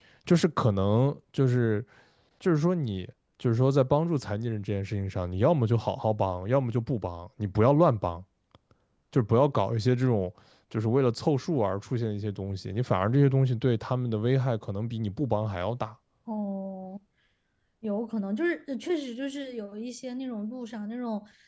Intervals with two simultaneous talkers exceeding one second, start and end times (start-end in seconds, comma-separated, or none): none